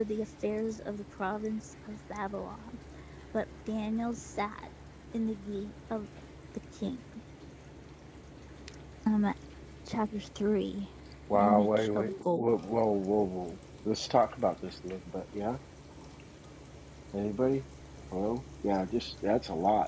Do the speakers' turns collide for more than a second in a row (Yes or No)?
Yes